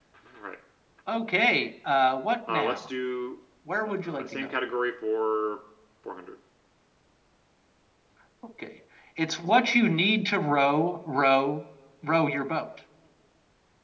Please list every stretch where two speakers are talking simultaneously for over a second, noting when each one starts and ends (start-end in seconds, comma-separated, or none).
none